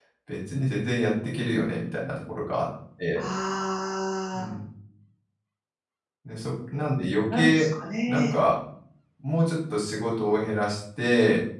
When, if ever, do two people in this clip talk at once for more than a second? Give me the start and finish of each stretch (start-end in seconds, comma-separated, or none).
none